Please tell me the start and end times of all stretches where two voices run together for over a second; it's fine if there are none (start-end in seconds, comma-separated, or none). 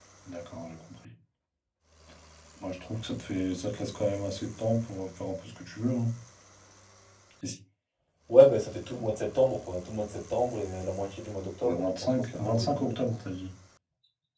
11.6-13.1